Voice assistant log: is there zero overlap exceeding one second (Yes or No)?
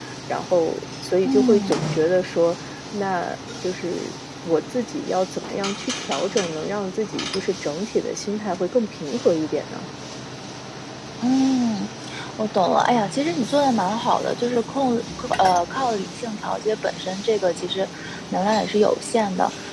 Yes